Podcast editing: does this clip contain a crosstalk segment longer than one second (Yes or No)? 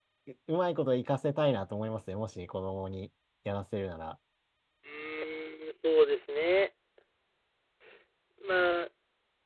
No